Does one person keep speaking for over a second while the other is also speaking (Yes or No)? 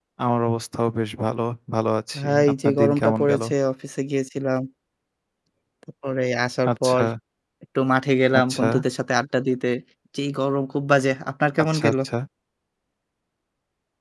Yes